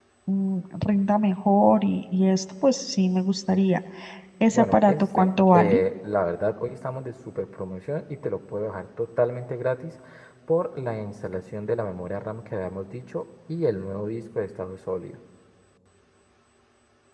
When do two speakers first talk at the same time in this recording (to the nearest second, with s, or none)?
5 s